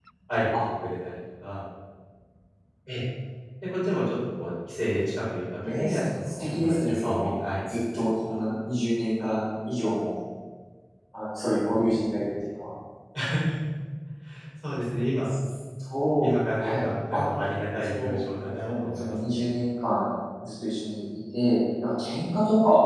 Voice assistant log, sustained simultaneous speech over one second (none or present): present